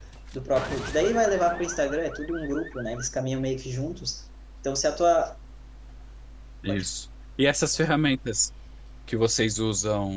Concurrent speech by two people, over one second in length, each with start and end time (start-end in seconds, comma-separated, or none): none